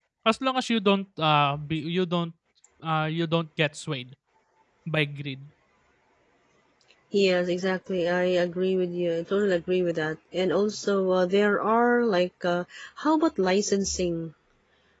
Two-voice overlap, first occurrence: none

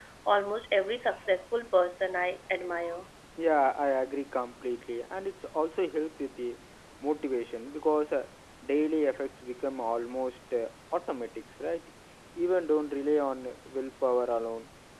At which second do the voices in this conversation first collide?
none

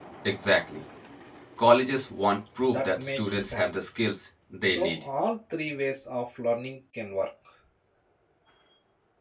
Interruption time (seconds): 2.6 s

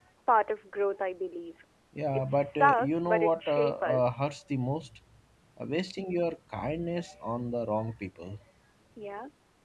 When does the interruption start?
2.1 s

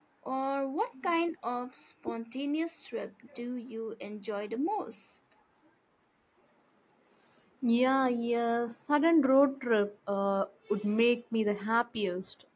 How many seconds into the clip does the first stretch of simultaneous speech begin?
none

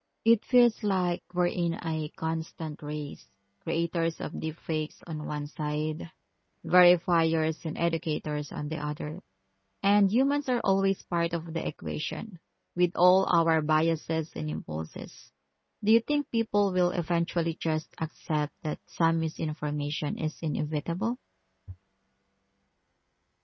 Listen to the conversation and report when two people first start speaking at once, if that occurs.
none

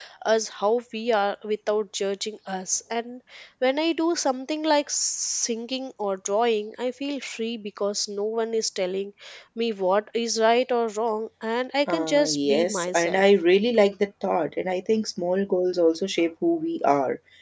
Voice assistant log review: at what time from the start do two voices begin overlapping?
11.9 s

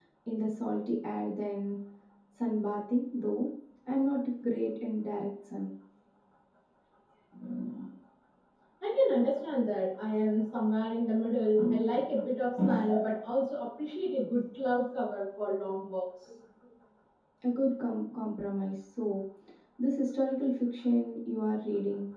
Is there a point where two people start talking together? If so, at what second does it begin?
none

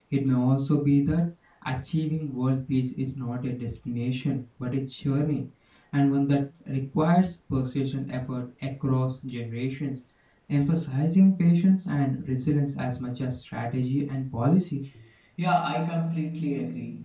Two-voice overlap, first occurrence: none

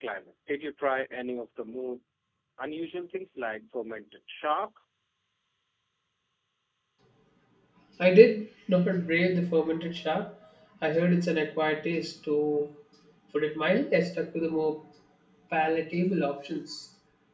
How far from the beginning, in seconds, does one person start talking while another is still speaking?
none

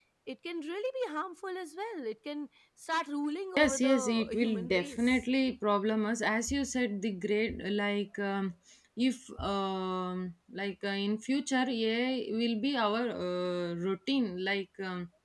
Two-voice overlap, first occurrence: 3.6 s

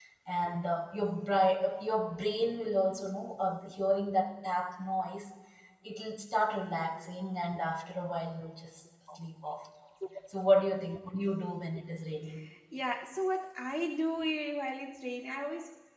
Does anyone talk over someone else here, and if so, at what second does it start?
none

